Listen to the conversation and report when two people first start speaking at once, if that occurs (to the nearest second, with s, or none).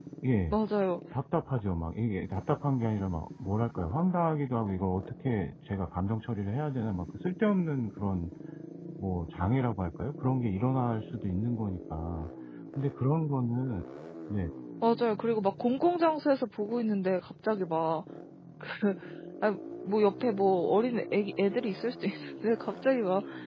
none